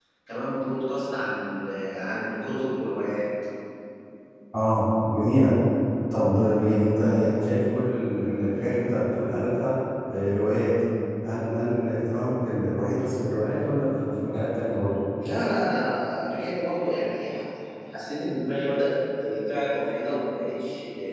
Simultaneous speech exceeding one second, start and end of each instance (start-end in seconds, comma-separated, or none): none